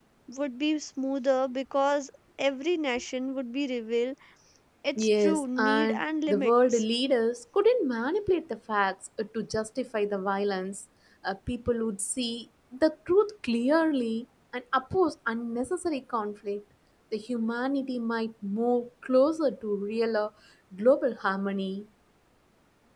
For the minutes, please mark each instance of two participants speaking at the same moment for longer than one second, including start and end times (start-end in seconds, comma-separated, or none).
5.0-6.8